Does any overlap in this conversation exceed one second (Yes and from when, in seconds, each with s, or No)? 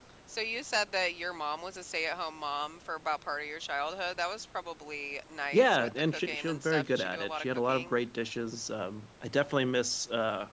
Yes, from 5.5 s